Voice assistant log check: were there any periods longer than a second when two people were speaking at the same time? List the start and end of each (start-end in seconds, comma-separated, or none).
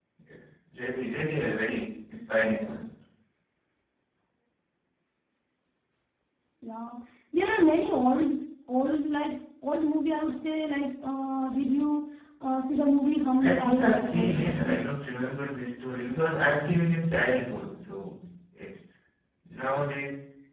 13.4-14.8